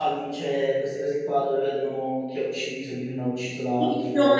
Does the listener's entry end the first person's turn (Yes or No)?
Yes